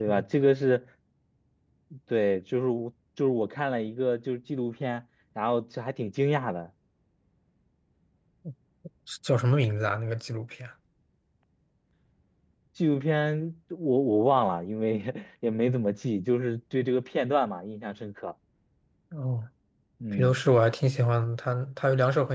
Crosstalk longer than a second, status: none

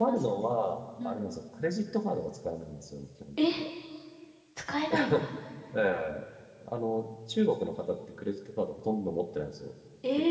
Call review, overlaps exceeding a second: none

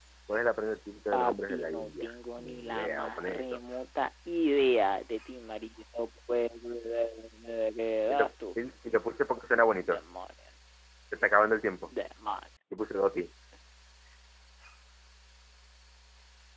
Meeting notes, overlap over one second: present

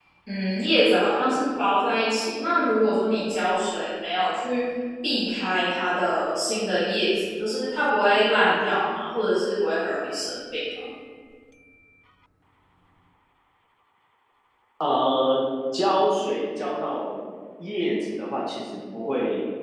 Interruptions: none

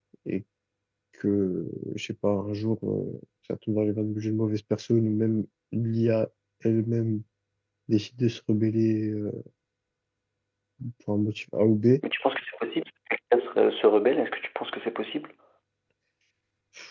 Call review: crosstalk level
none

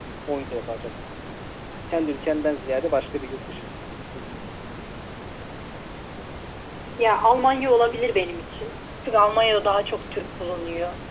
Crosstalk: none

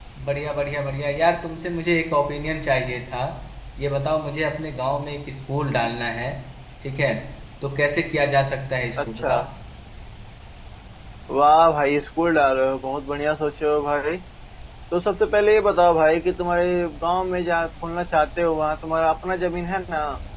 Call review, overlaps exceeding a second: none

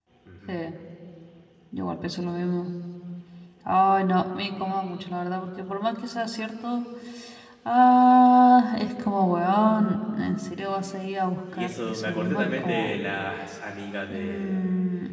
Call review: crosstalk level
present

